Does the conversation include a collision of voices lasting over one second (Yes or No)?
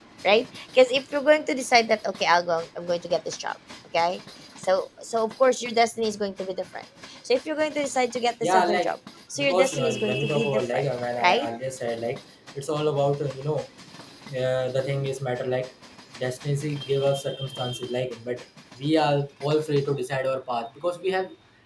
Yes